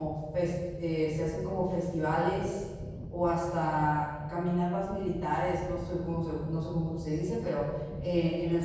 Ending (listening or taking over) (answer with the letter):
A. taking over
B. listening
B